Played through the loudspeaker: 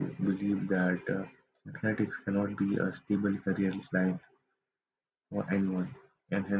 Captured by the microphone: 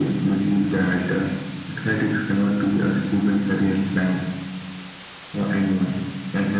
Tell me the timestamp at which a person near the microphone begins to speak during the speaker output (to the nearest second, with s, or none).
none